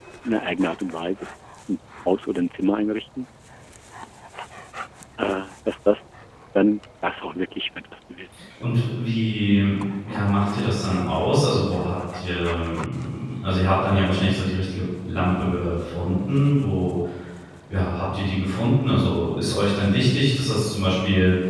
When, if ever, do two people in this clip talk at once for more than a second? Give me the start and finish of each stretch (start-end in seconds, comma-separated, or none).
none